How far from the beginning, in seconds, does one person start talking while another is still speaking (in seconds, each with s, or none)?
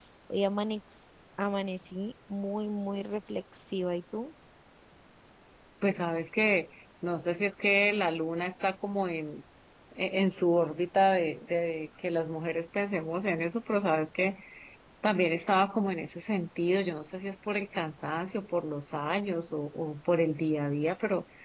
none